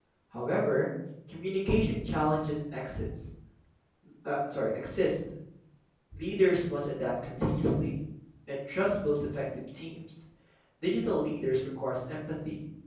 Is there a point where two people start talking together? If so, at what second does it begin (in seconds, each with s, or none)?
none